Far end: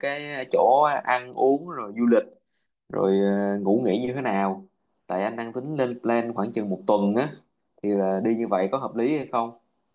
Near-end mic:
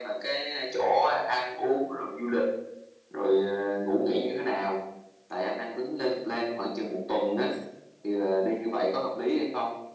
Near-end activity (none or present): none